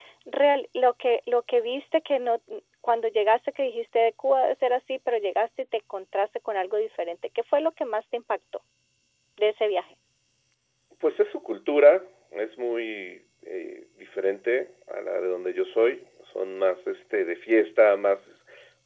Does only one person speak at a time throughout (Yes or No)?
Yes